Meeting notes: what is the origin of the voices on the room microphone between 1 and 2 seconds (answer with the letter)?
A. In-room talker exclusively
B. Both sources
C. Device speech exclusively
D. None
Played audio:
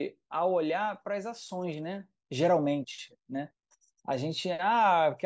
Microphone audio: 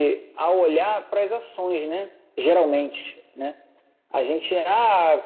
C